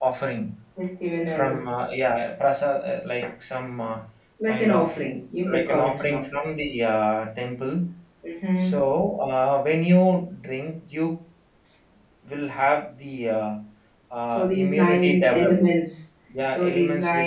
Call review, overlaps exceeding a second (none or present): present